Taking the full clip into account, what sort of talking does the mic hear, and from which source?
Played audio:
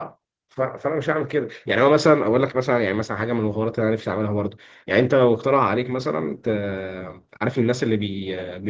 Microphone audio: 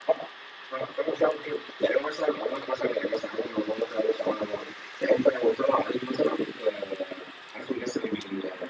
echo only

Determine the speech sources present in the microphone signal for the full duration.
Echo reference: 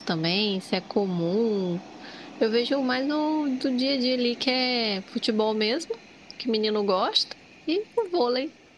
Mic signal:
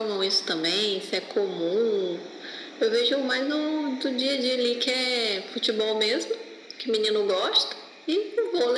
echo only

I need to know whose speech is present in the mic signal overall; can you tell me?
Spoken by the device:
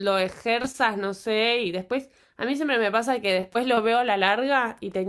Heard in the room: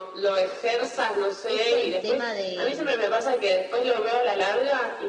both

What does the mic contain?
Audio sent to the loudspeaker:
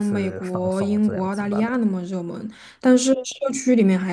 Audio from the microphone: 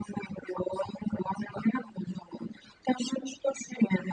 echo only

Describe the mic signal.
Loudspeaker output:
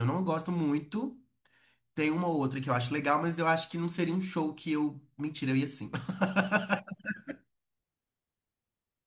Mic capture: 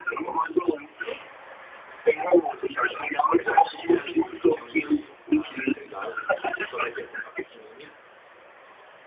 both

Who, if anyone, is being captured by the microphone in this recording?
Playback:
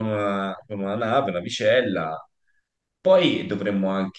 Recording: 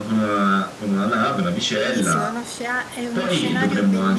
both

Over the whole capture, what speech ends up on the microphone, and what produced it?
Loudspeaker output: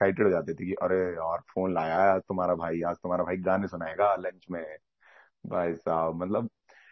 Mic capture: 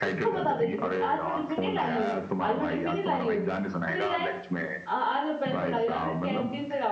both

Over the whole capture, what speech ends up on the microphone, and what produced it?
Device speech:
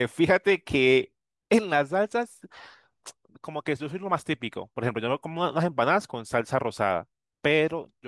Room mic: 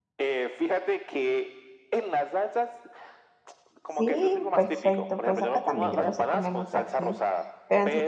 both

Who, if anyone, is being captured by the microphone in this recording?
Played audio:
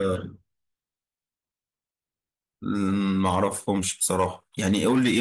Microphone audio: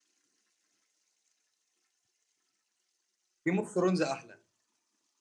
user only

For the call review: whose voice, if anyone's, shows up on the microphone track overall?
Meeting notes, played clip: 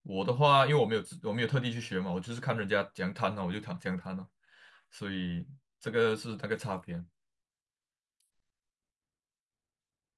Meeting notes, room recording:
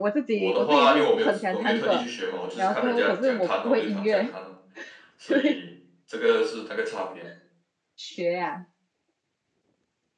both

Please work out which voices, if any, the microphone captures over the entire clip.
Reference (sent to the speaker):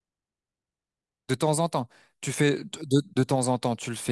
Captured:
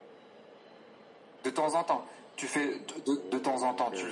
both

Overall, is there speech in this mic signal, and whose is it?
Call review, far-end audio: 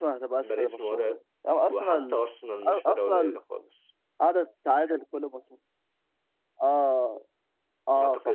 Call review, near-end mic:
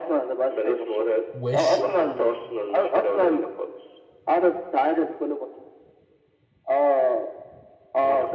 both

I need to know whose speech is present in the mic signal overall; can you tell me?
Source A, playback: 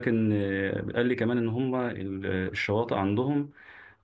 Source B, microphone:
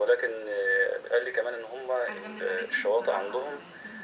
both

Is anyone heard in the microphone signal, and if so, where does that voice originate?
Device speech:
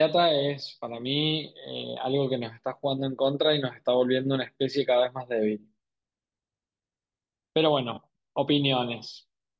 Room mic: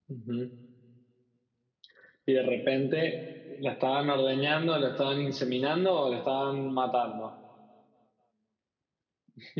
user only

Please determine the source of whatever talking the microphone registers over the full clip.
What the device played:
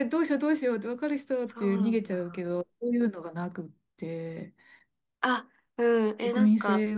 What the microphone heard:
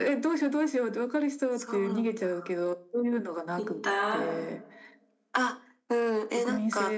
both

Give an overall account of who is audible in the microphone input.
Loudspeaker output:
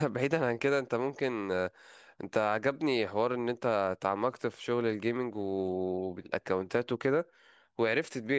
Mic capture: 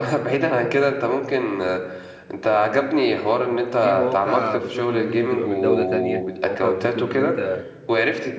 both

